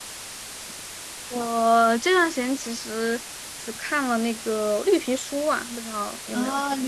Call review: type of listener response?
taking over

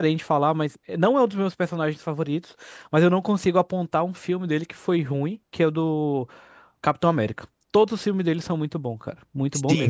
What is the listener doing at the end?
taking over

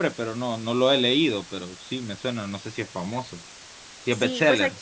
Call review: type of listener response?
taking over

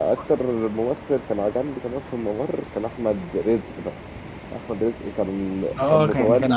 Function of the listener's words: taking over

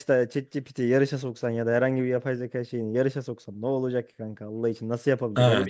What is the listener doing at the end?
taking over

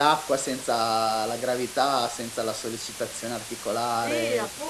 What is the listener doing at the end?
taking over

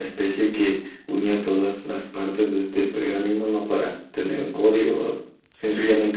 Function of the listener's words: listening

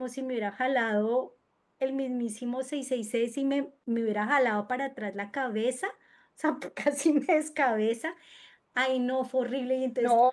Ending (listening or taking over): listening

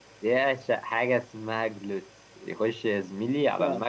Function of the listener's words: listening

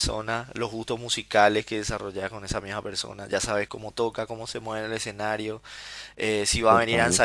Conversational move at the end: listening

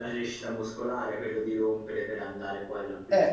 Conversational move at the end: taking over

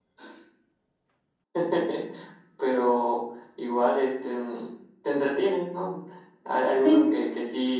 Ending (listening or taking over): listening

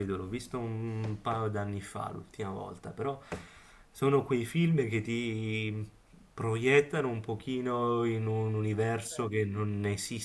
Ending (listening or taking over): listening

